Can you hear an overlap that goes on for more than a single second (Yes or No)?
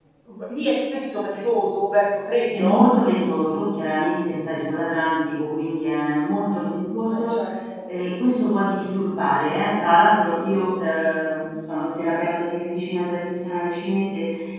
No